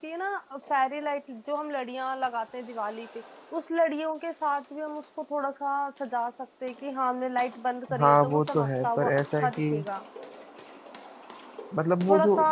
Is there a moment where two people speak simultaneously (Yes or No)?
Yes